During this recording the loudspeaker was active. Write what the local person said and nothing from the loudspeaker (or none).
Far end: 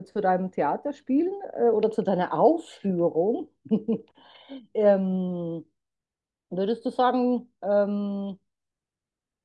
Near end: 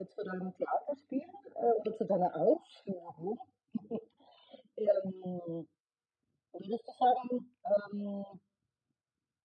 none